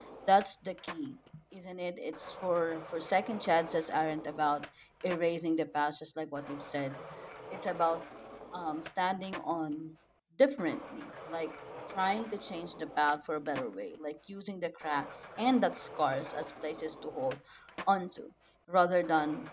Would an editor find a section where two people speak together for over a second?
No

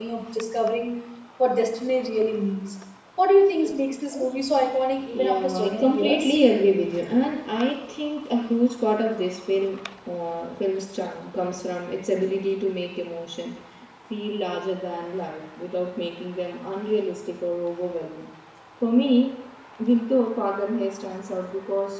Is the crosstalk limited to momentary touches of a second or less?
No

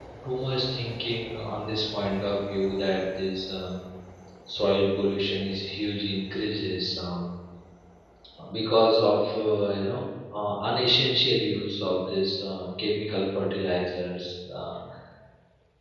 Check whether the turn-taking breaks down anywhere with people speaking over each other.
No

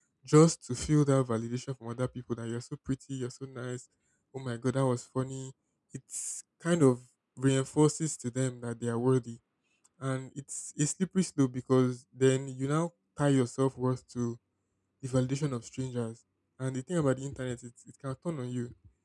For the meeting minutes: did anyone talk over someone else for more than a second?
No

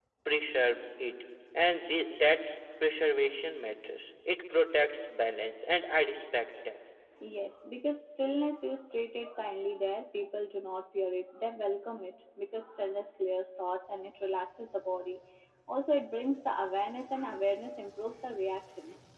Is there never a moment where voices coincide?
Yes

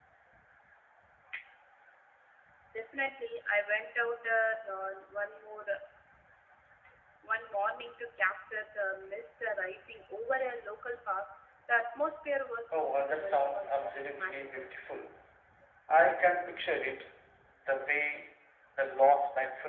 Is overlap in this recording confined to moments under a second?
No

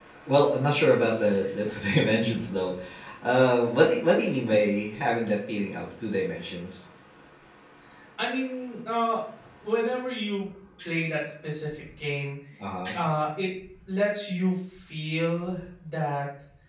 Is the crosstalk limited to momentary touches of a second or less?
Yes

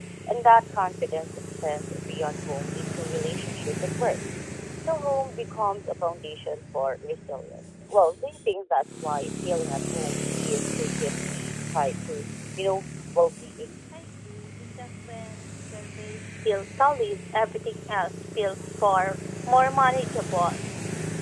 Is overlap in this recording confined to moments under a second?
Yes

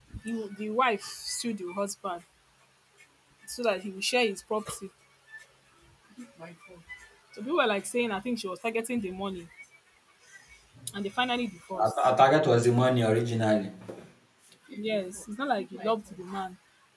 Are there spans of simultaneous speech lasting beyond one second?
No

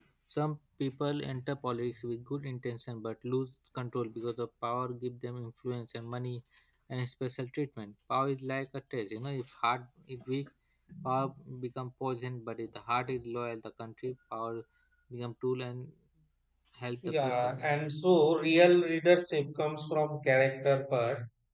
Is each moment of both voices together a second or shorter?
Yes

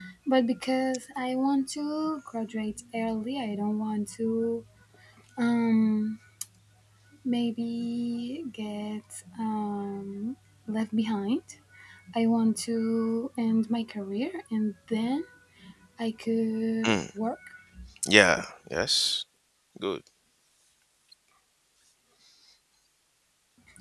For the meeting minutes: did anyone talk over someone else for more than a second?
No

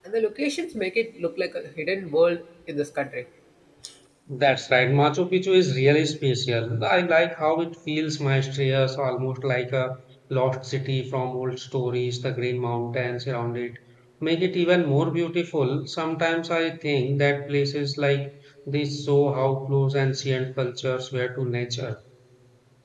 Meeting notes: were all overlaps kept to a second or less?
Yes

